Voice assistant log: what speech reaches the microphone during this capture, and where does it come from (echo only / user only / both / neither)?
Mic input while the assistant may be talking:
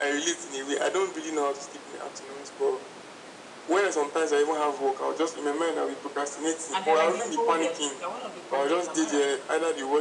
both